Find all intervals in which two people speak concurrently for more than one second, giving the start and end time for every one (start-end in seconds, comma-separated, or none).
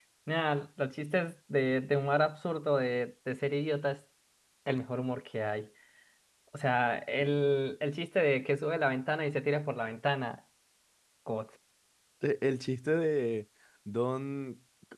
none